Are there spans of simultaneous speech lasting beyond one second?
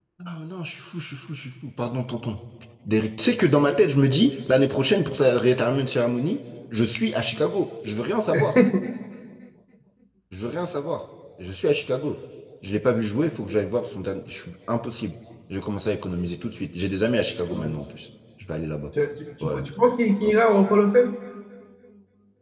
No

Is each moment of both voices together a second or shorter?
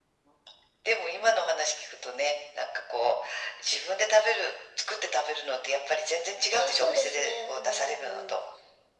No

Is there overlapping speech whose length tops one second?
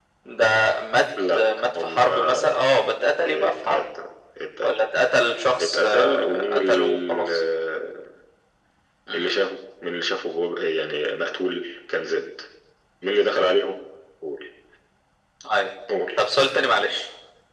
Yes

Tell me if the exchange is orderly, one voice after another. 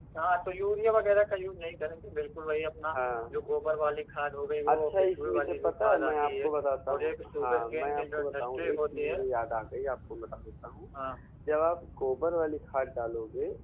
No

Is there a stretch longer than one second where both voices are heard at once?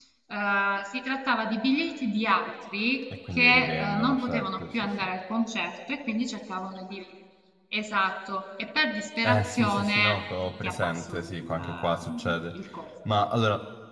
Yes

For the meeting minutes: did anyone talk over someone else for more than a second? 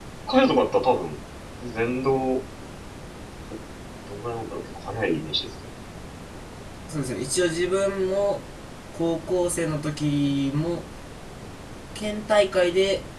No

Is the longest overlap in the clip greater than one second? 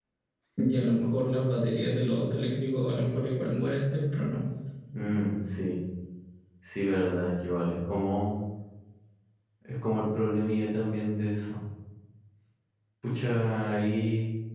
No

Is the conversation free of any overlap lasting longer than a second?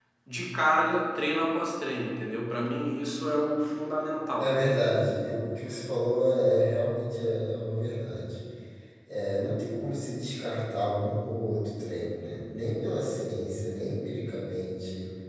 Yes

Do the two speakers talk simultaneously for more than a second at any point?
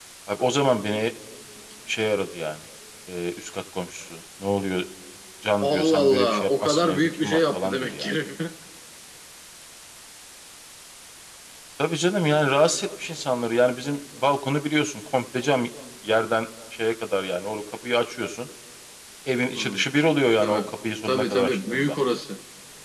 Yes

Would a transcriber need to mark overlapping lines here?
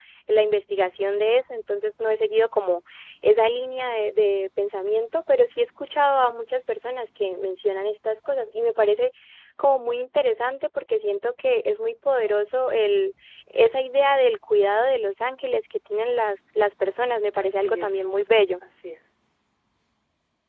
Yes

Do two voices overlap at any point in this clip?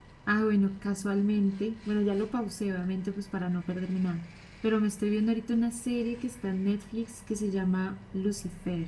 No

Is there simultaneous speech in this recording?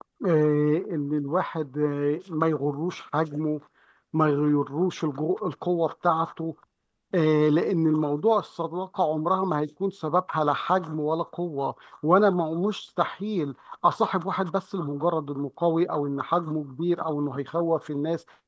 No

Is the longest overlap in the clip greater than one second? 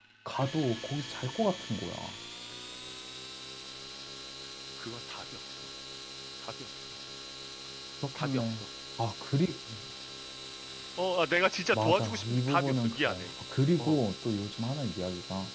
Yes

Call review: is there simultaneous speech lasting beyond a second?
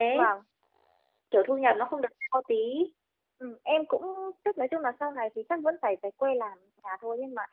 No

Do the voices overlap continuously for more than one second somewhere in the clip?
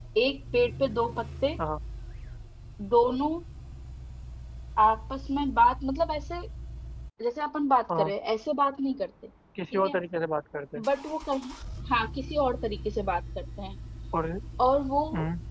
No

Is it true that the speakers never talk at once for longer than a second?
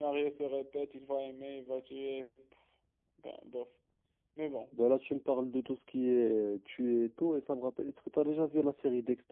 Yes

